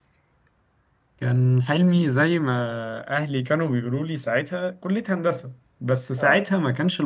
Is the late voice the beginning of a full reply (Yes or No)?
No